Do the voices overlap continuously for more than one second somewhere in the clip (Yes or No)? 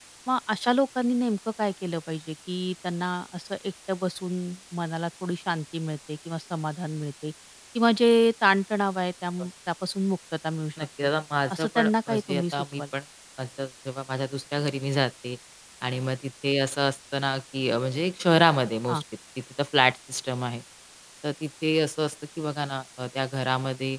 Yes